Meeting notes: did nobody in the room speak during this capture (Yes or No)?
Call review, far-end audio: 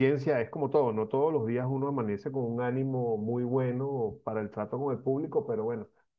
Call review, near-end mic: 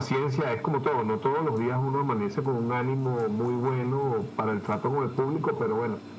Yes